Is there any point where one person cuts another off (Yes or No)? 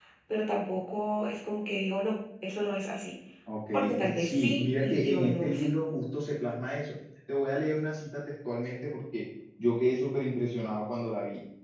Yes